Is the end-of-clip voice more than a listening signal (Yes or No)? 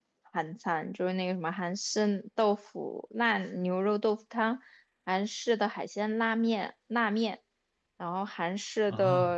No